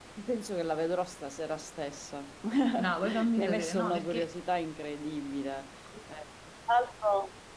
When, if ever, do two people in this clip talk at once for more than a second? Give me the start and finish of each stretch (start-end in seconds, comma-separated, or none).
2.7-4.3